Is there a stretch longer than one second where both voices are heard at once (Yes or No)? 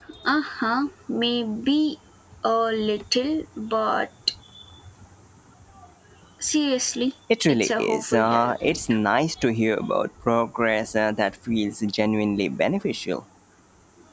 Yes